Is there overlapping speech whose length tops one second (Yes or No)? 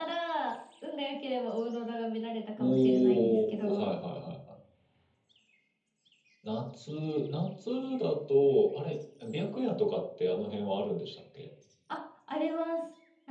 Yes